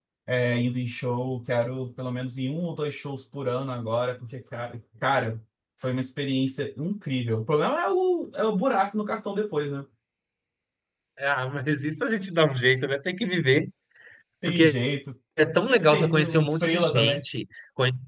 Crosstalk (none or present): present